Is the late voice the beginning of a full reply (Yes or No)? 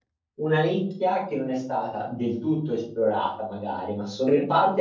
No